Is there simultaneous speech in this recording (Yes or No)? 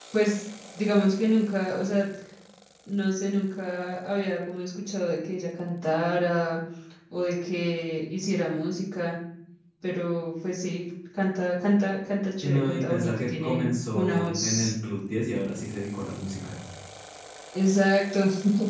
Yes